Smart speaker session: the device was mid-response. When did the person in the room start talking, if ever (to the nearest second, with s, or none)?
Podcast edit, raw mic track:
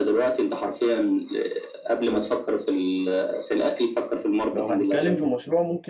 5 s